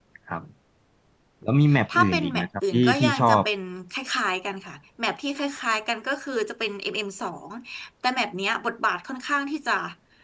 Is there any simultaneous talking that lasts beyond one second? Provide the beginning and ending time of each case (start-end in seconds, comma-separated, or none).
1.9-3.4